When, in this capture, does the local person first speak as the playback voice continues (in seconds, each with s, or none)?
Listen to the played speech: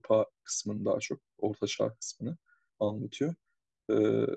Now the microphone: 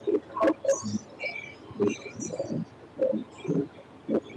none